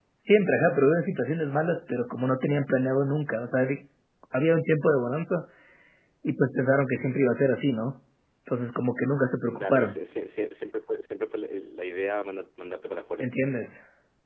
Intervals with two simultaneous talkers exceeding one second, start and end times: none

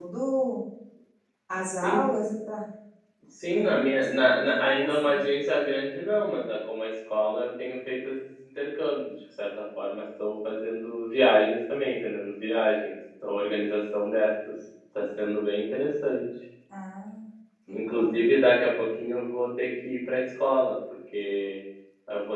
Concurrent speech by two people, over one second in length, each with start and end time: 3.5-5.2

